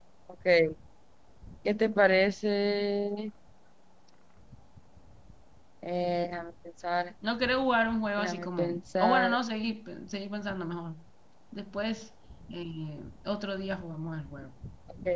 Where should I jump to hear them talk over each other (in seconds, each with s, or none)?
8.2 s